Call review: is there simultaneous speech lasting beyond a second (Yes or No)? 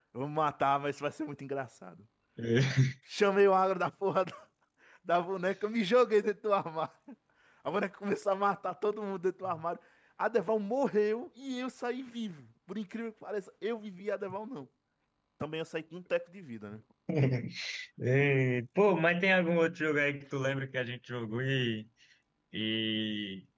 No